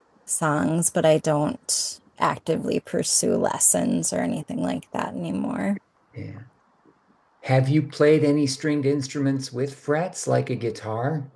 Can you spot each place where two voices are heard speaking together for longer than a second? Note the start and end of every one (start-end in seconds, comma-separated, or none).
none